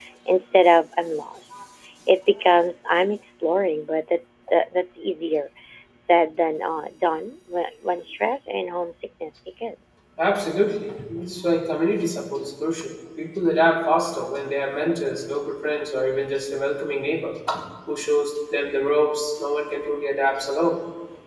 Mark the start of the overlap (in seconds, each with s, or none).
none